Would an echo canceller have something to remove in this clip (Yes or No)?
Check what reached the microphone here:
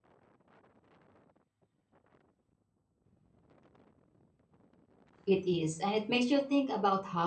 No